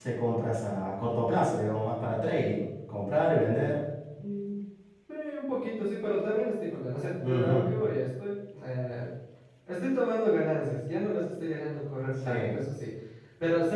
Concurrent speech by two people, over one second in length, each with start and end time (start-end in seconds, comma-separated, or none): none